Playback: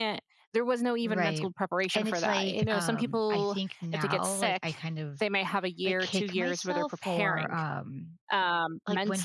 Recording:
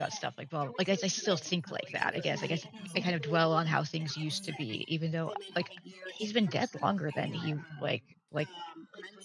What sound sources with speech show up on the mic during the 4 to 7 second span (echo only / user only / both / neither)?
both